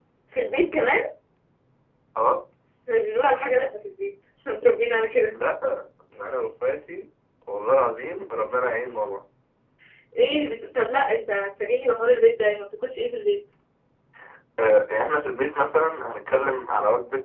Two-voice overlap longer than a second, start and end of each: none

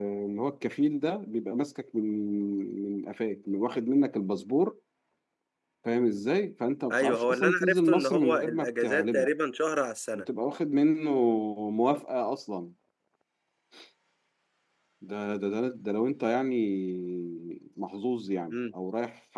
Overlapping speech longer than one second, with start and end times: 6.9-9.3

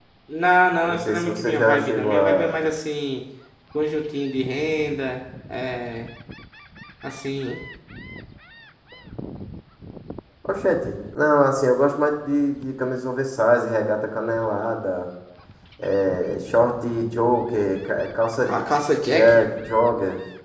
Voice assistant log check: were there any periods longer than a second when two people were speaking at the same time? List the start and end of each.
0.8-2.6

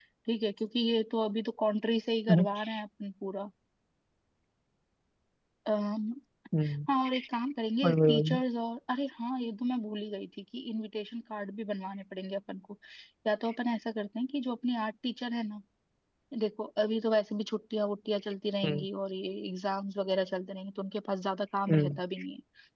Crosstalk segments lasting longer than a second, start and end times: none

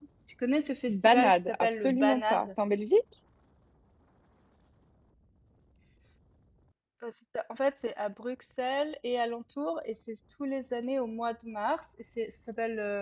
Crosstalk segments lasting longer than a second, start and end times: 0.9-2.5

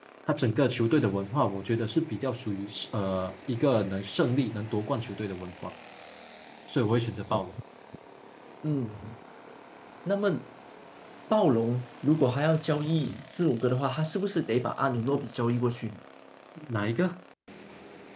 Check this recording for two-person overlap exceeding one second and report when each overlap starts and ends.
none

